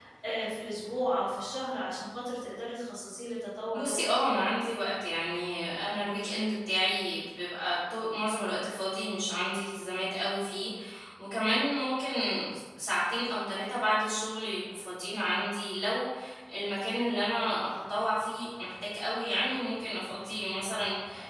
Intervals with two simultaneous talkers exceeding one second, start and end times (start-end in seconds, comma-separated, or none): none